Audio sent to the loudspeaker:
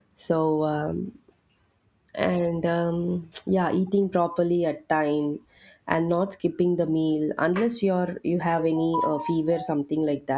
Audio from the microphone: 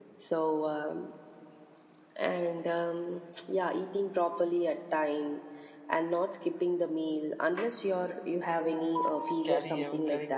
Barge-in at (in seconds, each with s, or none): 9.4 s